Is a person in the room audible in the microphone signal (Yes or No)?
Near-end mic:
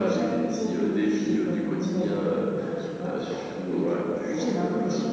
No